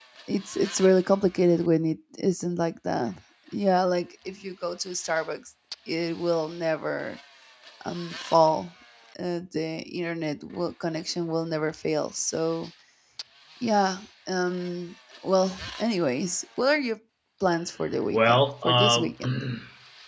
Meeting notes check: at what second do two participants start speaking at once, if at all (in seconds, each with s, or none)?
18.1 s